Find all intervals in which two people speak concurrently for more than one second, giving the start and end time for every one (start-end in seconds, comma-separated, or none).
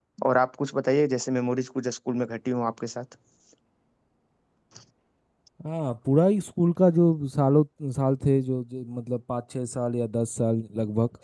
none